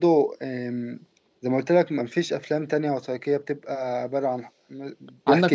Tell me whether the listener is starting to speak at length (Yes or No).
Yes